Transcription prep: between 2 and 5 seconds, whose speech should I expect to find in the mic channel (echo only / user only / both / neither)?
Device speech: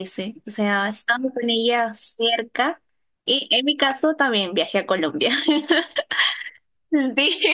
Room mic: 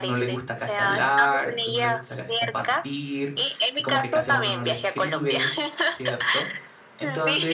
both